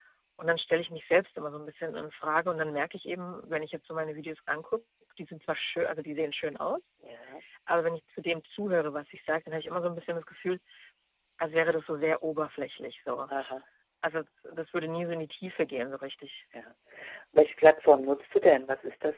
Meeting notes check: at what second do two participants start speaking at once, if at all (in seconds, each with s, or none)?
none